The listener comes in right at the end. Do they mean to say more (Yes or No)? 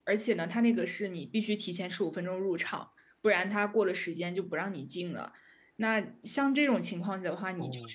No